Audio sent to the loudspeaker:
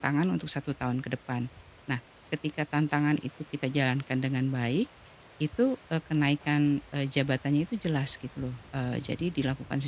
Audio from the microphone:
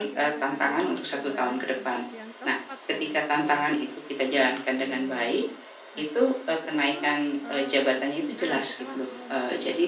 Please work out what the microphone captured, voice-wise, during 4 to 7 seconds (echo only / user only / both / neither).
both